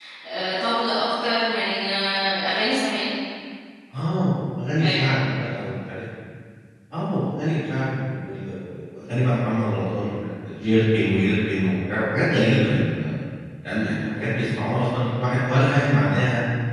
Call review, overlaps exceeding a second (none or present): none